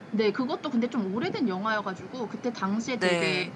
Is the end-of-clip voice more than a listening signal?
No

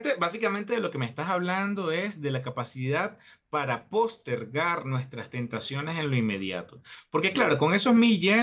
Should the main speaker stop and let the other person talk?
No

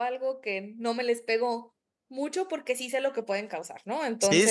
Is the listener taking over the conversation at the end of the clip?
Yes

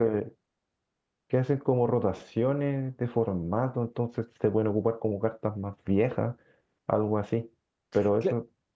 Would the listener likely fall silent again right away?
Yes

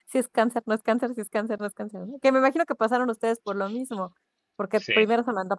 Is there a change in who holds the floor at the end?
No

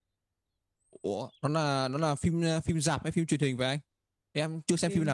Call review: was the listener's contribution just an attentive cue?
No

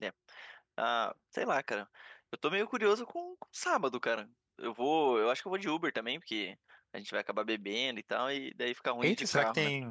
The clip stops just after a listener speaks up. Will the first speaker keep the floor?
No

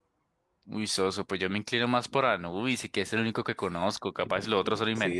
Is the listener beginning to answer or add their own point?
Yes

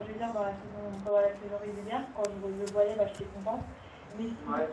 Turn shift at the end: No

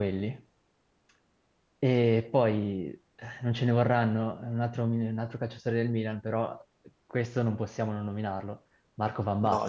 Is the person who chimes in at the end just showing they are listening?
No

